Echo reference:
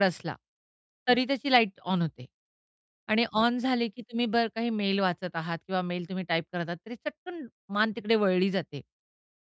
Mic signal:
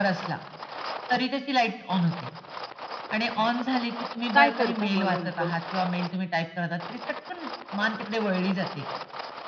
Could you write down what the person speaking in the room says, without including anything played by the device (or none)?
काय करता मग नेमकं?